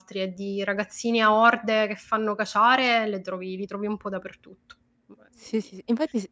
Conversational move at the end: taking over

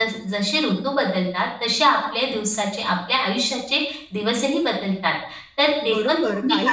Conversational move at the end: taking over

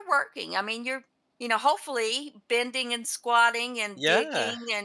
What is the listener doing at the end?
listening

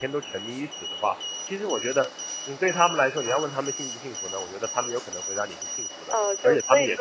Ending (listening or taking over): taking over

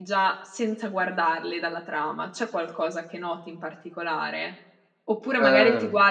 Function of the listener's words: listening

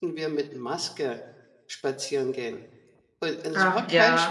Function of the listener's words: listening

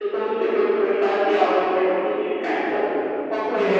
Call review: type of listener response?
taking over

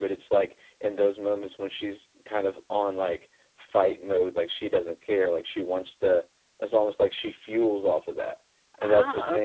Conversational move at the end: listening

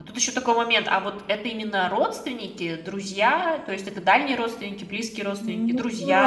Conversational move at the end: taking over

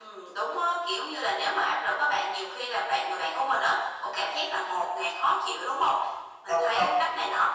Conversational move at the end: listening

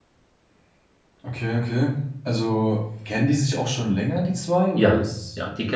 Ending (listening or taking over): taking over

